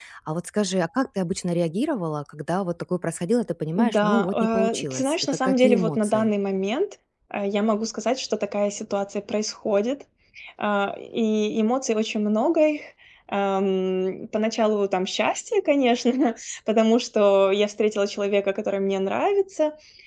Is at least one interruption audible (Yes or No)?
Yes